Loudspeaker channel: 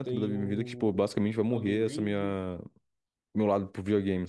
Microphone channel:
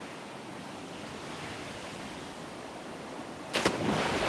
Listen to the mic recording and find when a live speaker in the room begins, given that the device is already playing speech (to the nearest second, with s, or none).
none